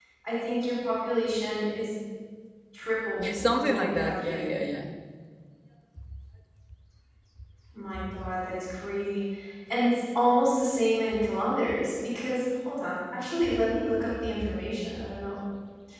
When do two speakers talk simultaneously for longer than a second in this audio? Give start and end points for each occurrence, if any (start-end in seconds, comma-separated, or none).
3.3-4.6